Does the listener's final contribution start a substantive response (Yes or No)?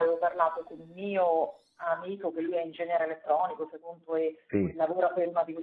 No